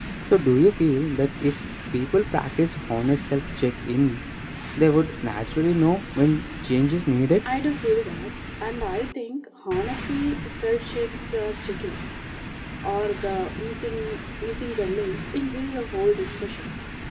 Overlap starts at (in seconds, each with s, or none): none